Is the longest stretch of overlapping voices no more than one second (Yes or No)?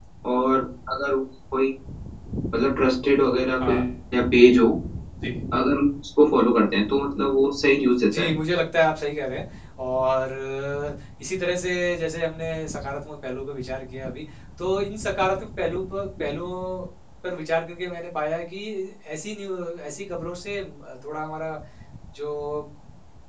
Yes